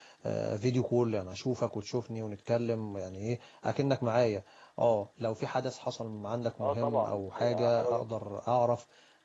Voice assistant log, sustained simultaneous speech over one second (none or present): present